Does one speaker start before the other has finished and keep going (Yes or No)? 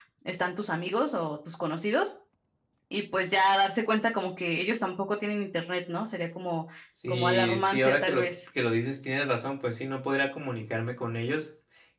Yes